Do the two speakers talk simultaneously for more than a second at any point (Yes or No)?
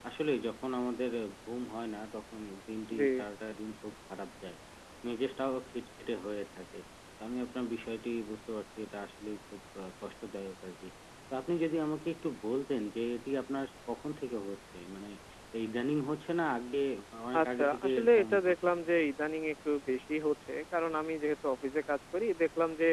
Yes